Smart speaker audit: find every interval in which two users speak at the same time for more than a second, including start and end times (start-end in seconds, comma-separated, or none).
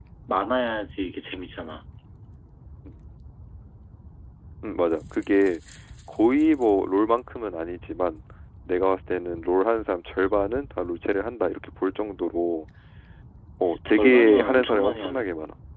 13.9-15.2